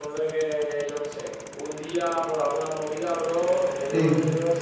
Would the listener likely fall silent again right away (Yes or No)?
Yes